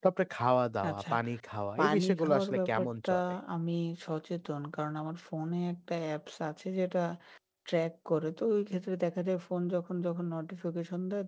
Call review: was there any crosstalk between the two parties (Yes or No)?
Yes